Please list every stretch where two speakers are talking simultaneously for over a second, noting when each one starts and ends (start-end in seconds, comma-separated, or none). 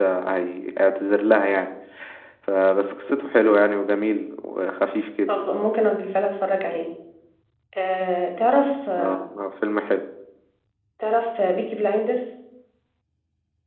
none